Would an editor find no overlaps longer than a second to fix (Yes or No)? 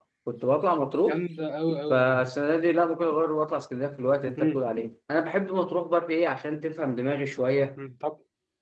Yes